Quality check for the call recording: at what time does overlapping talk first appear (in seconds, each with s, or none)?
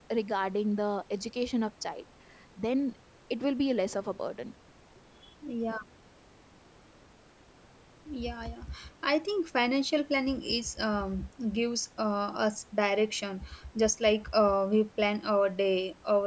none